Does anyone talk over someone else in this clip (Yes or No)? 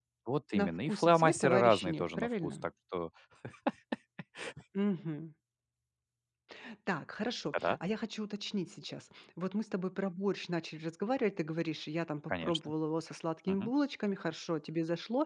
Yes